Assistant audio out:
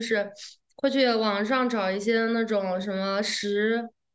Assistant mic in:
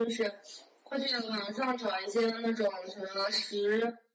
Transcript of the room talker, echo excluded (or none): none